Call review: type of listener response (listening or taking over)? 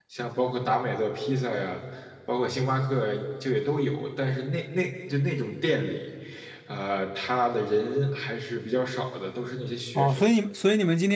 taking over